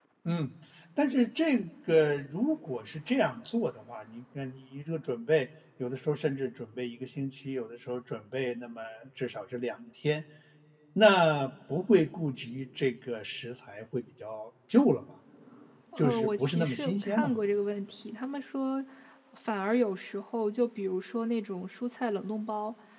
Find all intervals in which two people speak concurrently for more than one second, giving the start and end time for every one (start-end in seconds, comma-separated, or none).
16.0-17.3